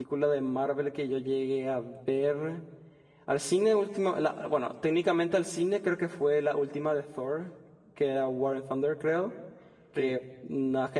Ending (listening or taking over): listening